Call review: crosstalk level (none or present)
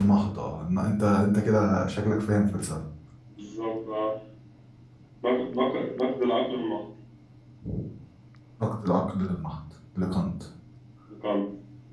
none